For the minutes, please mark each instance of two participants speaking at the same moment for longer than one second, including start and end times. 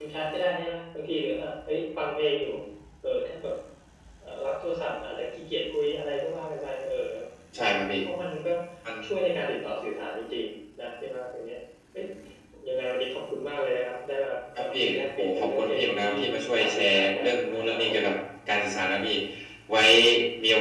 14.7-16.2, 16.6-18.0

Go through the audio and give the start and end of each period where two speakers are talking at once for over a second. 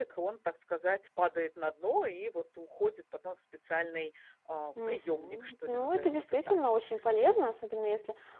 4.9-6.6

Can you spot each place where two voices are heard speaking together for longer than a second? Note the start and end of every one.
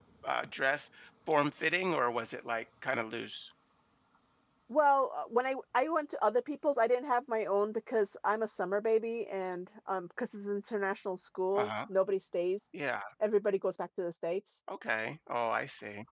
none

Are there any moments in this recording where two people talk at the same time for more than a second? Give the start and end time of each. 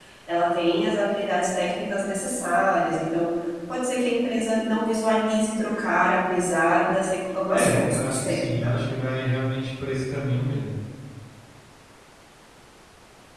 7.5-8.8

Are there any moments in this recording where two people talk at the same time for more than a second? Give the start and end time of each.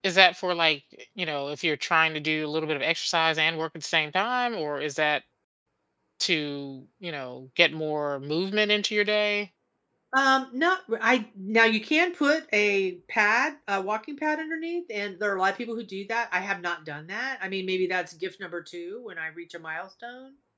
none

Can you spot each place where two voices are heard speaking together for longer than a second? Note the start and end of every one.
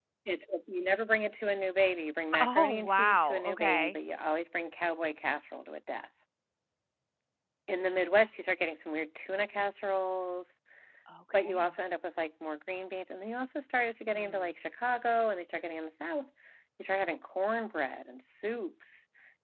2.4-4.0

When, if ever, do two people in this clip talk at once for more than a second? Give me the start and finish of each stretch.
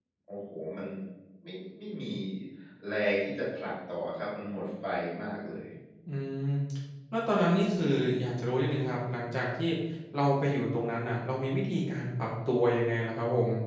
none

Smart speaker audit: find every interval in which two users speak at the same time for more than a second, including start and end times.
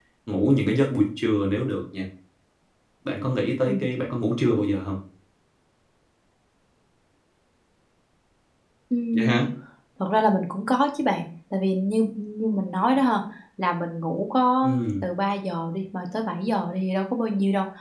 none

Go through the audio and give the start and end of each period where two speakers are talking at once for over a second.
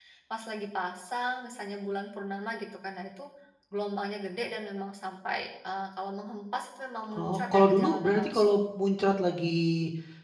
7.1-8.6

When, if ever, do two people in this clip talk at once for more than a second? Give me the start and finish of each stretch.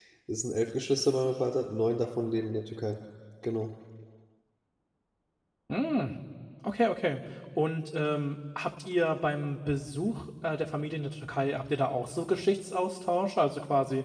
none

